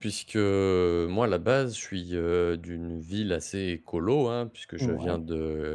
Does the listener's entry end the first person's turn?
No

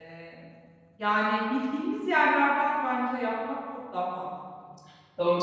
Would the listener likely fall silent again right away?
No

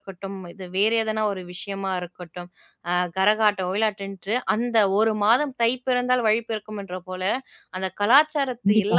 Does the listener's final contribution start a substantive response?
No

